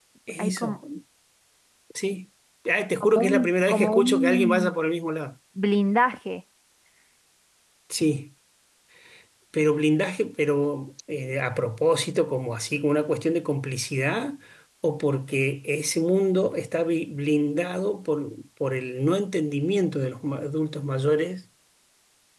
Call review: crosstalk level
present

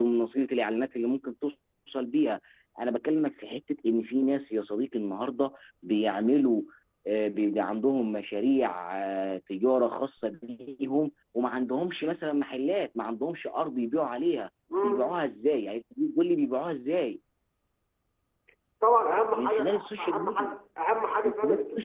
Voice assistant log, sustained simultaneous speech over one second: present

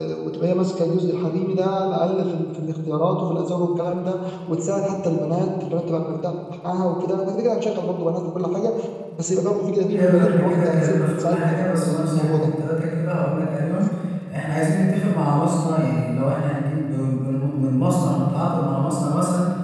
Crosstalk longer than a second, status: present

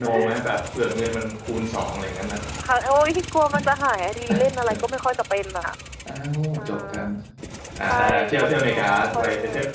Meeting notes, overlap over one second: present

